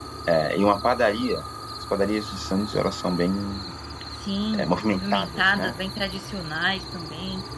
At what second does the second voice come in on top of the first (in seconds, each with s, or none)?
4.5 s